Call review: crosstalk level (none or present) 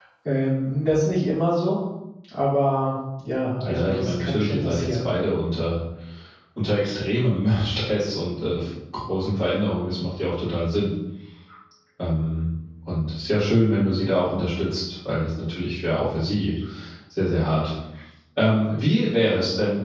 present